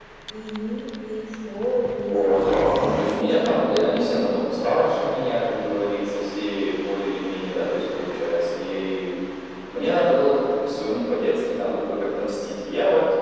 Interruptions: present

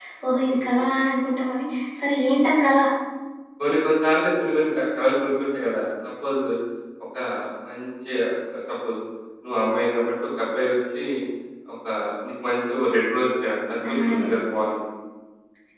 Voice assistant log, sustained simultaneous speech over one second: none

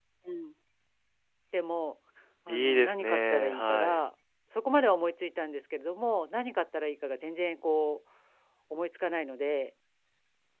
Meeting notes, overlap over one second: present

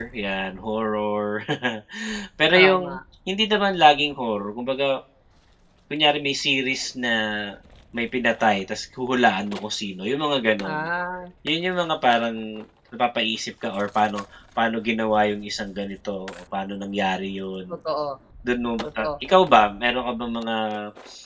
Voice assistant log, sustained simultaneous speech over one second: none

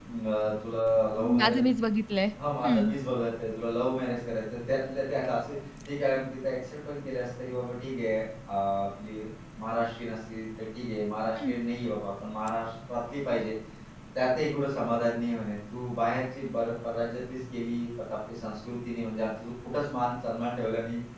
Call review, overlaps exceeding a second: none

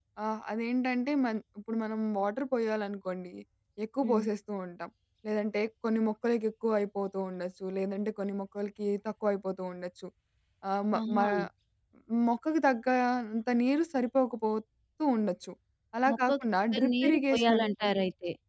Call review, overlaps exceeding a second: present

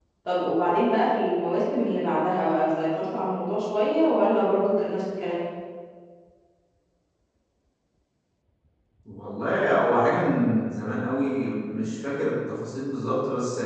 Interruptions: none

